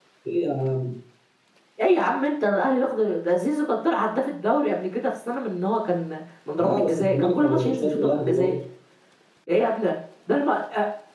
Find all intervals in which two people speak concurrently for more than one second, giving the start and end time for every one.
6.6-8.6

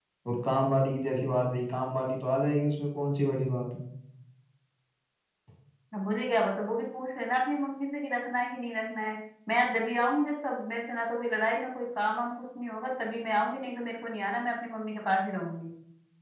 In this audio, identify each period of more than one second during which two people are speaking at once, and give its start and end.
none

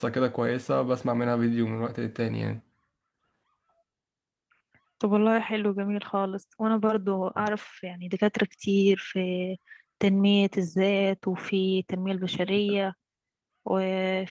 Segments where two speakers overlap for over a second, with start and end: none

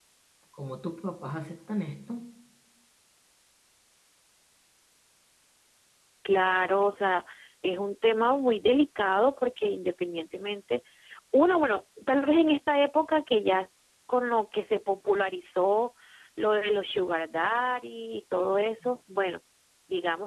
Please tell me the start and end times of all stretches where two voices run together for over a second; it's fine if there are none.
none

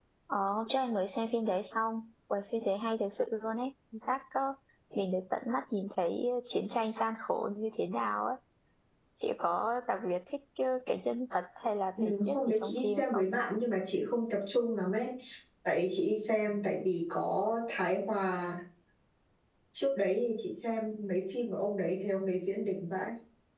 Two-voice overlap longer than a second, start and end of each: 12.0-13.2

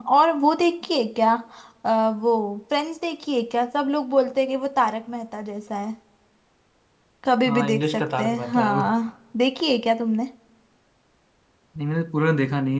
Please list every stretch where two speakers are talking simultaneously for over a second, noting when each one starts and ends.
7.5-8.8

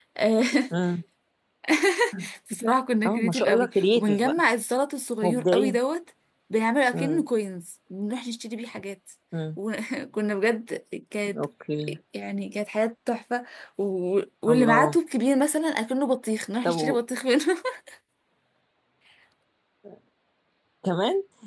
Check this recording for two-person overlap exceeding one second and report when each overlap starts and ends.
3.0-4.4

